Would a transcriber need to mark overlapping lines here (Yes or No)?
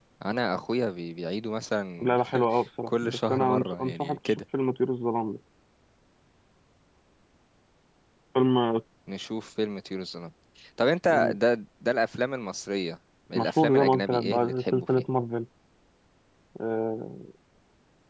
Yes